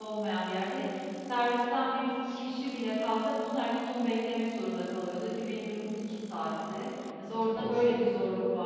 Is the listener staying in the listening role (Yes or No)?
Yes